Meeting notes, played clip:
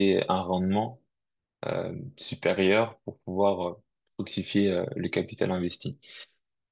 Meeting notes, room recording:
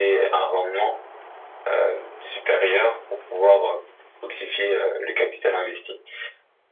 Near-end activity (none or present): none